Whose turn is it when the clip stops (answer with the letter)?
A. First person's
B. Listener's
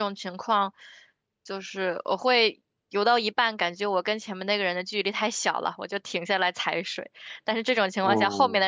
A